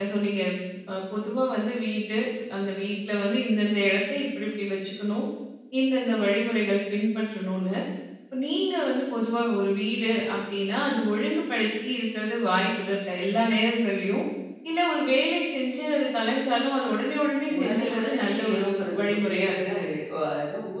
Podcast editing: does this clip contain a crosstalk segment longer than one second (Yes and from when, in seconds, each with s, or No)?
Yes, from 17.5 s